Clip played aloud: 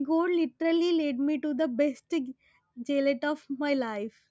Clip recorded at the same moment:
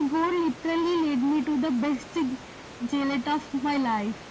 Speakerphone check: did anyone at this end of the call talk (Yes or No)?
No